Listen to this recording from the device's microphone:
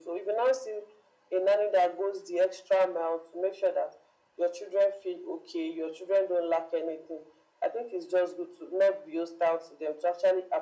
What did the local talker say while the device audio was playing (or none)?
none